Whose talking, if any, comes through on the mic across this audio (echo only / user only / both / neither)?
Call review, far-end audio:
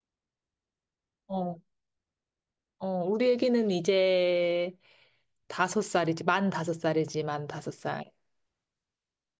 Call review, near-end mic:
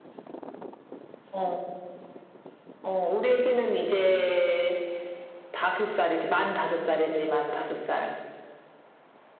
echo only